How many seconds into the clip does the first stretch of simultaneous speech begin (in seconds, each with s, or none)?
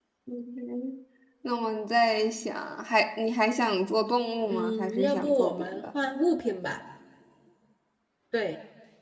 4.4 s